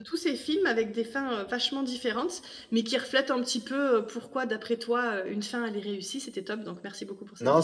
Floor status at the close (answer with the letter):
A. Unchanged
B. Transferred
B